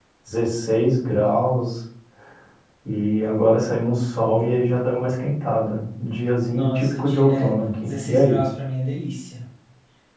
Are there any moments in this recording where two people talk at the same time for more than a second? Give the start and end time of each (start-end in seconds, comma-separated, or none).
6.5-8.4